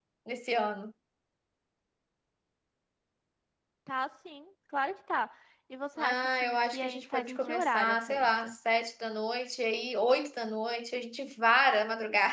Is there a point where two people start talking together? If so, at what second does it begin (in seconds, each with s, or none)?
6.0 s